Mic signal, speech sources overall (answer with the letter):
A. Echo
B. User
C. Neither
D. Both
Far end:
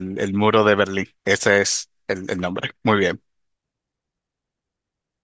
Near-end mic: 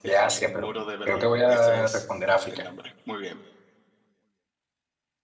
D